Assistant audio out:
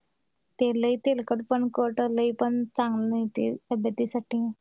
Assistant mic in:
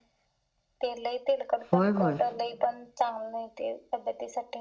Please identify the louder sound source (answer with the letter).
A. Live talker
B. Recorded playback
A